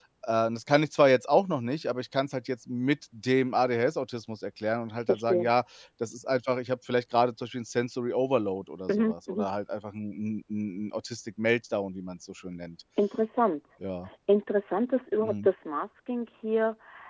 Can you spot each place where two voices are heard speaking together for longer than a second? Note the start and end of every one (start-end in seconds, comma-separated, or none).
none